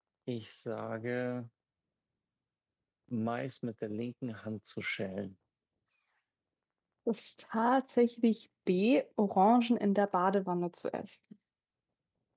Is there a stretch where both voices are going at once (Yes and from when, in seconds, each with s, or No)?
No